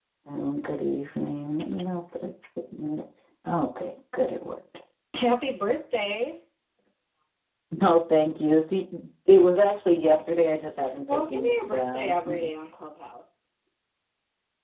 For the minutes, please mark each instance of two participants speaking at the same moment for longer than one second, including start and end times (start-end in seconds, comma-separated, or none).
11.1-12.5